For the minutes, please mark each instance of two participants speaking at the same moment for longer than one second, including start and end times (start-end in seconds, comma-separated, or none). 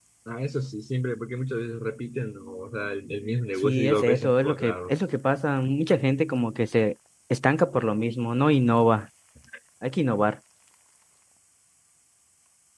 3.6-4.9